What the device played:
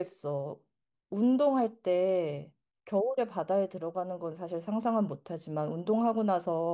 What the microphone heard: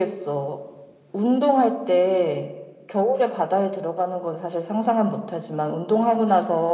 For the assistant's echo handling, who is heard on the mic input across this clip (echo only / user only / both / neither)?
echo only